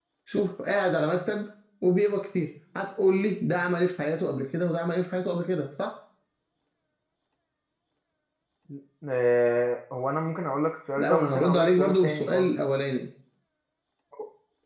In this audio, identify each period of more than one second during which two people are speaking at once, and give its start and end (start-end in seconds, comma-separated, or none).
11.0-12.5